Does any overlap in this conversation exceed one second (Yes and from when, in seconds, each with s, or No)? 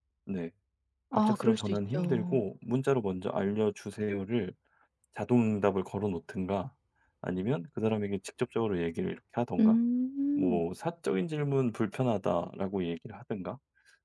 Yes, from 1.1 s